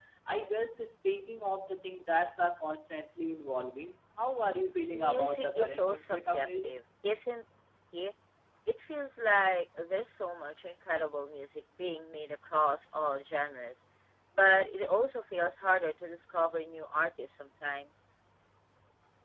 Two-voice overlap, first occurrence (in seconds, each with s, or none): 4.9 s